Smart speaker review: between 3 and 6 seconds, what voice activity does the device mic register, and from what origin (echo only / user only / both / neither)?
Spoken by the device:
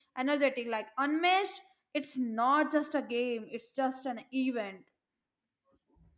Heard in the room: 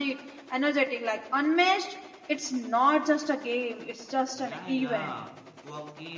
both